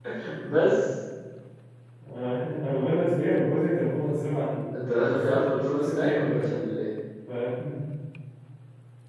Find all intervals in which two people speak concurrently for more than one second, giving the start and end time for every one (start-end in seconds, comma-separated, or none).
4.8-6.5